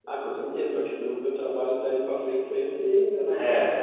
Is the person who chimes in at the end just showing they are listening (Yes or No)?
Yes